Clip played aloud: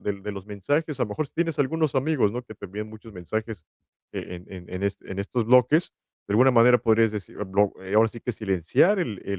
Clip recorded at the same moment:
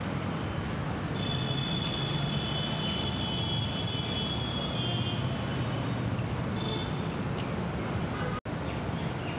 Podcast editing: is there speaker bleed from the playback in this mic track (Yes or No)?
No